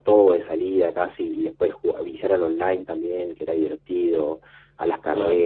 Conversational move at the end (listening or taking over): listening